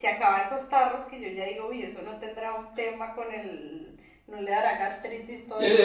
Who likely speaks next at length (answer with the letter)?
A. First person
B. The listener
B